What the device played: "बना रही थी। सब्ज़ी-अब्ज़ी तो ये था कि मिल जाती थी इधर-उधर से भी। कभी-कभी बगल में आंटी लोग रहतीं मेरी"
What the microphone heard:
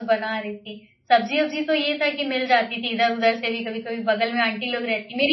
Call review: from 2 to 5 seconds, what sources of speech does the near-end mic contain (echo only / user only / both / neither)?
echo only